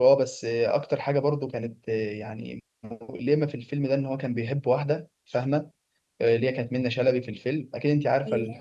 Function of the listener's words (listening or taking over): listening